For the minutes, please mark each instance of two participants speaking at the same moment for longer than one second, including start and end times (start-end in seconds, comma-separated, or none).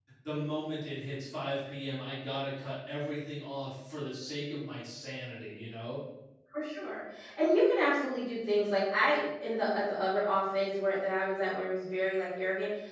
none